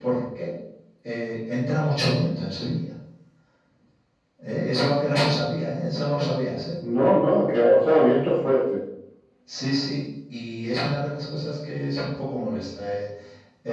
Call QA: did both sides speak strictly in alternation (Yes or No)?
Yes